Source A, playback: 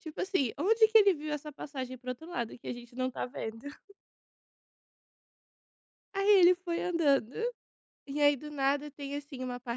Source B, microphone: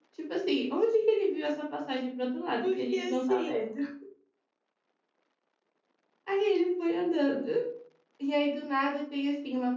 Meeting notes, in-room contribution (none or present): present